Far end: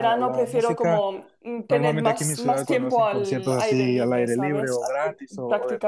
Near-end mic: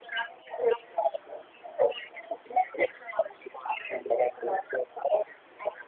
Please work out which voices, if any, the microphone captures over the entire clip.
echo only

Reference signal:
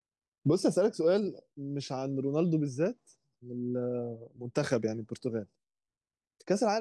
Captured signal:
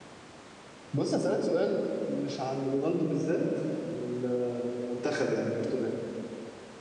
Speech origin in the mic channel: echo only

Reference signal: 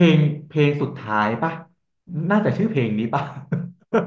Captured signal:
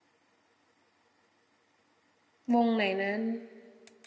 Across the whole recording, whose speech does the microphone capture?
user only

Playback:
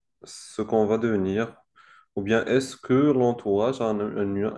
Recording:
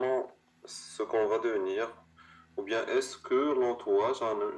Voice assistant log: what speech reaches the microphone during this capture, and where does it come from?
echo only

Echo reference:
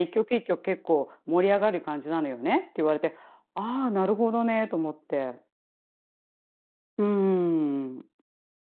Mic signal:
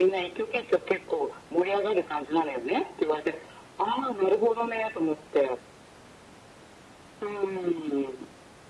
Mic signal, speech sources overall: echo only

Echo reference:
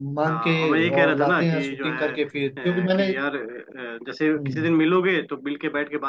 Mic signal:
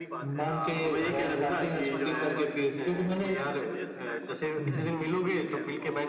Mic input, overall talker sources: both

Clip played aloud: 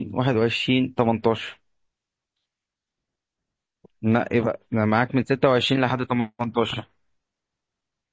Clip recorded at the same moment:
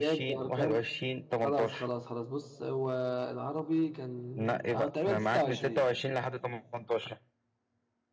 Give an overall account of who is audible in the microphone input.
both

